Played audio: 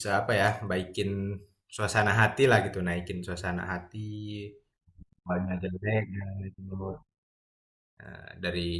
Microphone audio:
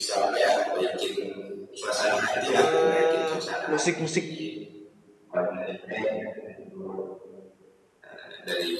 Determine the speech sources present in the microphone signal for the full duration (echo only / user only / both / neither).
both